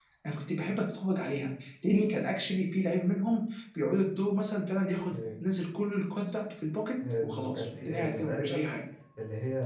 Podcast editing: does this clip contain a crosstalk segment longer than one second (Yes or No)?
Yes